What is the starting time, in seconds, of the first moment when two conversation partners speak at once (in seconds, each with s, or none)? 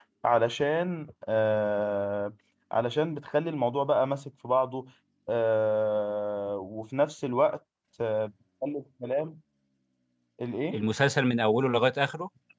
none